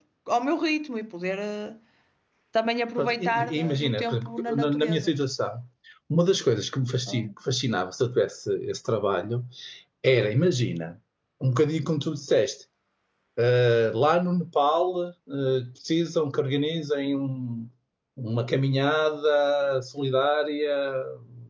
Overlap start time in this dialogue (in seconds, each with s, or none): 3.0 s